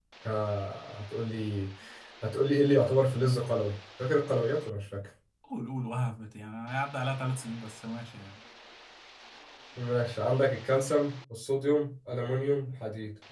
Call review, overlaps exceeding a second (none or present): none